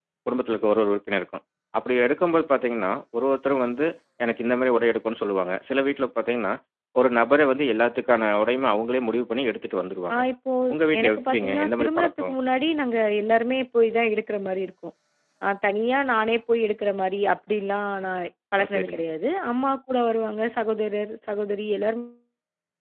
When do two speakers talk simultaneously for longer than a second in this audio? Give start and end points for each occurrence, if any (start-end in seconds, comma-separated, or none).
11.0-12.3